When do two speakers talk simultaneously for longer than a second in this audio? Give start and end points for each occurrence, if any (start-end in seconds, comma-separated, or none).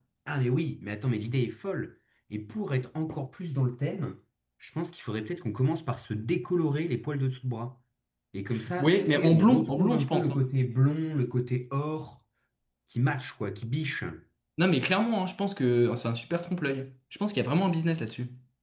8.8-10.4